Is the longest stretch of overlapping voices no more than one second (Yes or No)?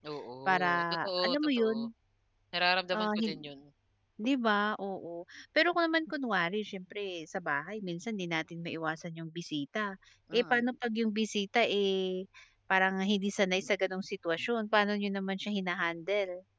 No